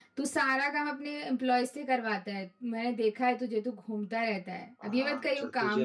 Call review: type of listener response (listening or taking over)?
taking over